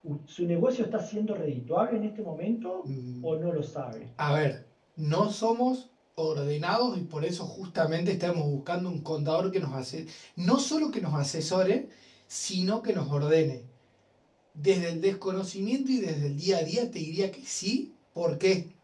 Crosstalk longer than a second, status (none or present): none